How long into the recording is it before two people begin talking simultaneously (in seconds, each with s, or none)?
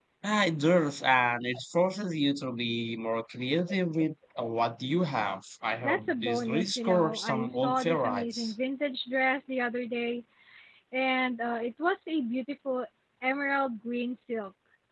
5.8 s